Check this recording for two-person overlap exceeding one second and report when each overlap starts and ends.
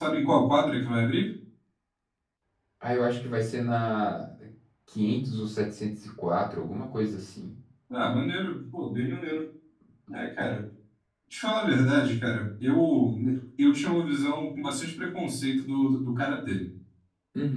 none

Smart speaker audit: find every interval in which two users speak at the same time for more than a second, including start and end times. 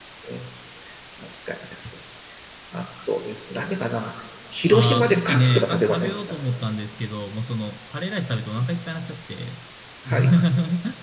4.7-6.4

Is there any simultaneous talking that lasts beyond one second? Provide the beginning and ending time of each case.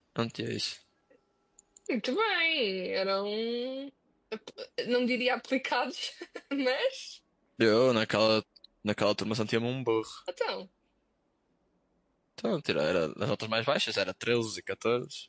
none

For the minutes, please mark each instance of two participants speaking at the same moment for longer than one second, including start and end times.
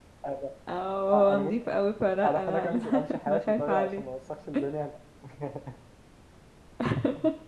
2.2-4.0

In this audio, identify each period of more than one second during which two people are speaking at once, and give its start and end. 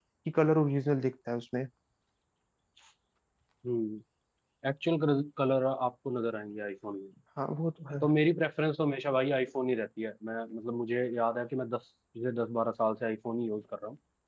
none

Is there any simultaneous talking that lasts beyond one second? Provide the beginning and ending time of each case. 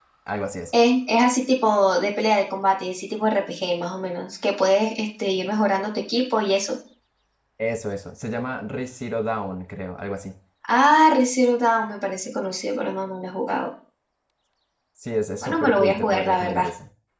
15.4-16.7

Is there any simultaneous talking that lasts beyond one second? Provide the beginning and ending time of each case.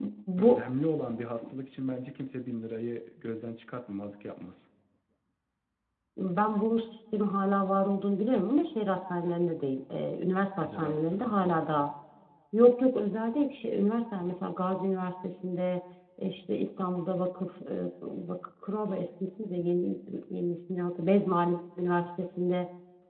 10.6-11.9

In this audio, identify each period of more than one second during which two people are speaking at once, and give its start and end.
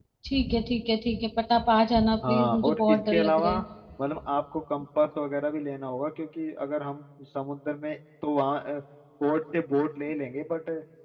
2.2-3.6

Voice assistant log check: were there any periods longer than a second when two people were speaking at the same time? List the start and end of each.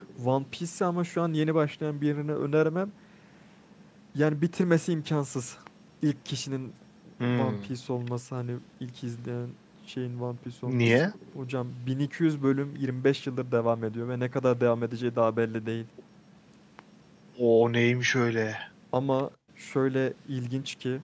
none

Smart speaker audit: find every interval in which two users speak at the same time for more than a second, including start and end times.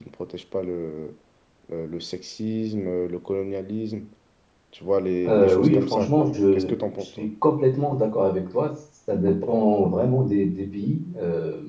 5.3-7.3

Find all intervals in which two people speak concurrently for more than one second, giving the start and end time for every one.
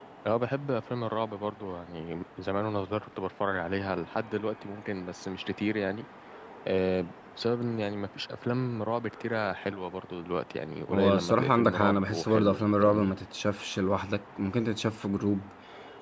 10.9-13.1

